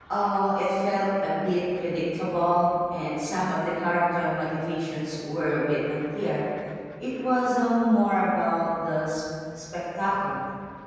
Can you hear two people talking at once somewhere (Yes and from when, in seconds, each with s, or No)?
No